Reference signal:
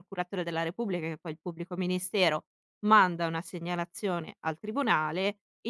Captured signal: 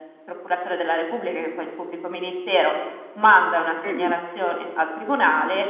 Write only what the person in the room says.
Mh-mh,

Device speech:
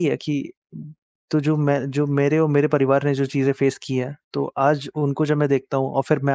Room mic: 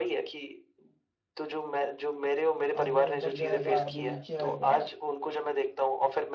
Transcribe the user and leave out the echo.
आदमी ऊपर जाएगा, आदमी नीचे आएगा

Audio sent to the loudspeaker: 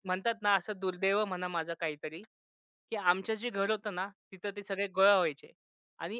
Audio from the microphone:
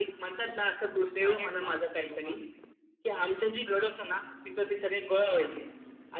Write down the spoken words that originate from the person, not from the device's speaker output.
अरे बापरे! वाह!

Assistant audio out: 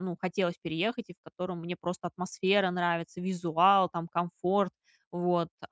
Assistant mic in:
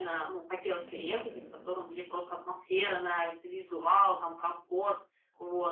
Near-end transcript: интересно.

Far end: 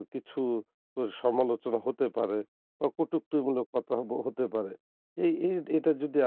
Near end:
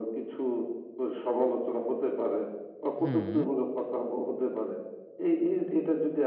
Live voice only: হুম,

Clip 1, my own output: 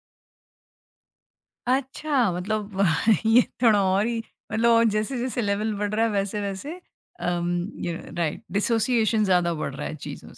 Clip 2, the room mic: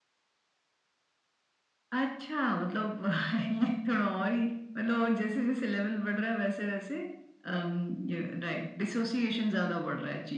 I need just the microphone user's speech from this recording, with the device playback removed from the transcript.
none

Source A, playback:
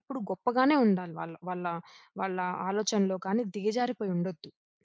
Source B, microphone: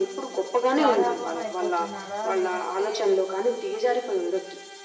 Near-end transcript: గారాబం అయిపోతున్నారా? లేదంటే

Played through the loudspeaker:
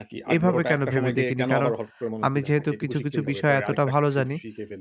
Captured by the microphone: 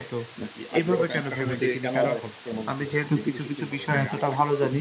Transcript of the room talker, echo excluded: none

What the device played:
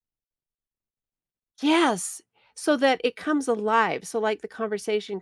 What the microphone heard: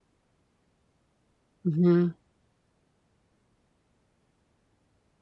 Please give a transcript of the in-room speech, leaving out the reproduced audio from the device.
Mhm.

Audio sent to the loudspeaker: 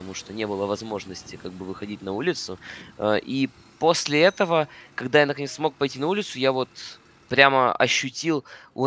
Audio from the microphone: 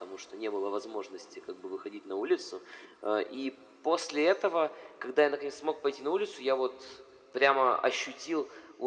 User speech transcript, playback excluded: none

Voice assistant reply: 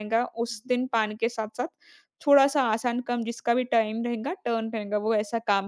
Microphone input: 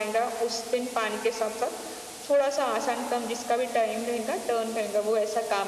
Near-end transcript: none

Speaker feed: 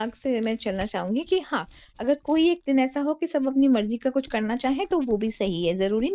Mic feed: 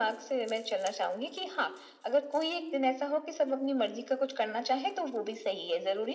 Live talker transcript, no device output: none

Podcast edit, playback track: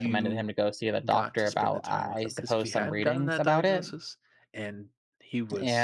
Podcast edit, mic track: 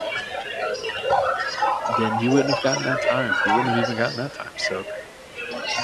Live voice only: then you wouldn't have gotten that time. You wouldn't have even gotten that time. So

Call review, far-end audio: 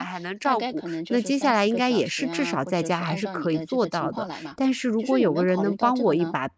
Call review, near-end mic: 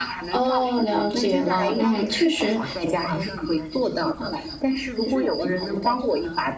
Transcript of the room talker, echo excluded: 哦，了解了。嗯，确实，

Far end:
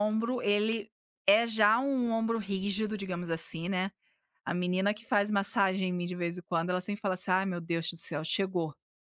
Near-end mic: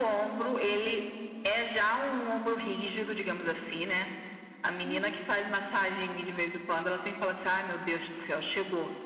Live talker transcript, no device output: Uhum,

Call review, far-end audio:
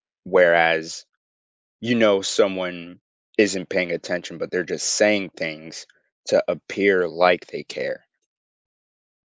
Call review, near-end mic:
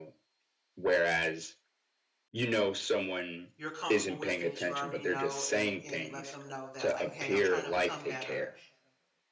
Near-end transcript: you're comfortable with and that you already know and and let them know that like, hey, I'm trying to become better

